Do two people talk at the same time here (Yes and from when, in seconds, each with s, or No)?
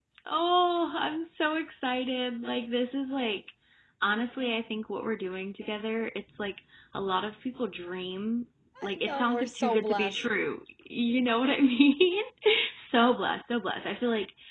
Yes, from 8.8 s